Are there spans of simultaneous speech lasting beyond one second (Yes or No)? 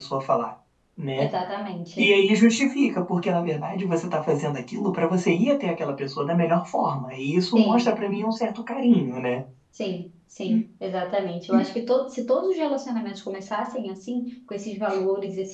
No